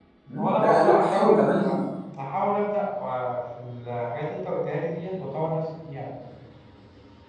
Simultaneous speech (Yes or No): Yes